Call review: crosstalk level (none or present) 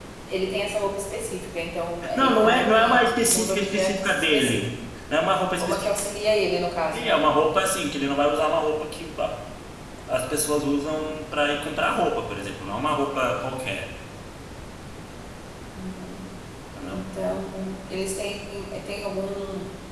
present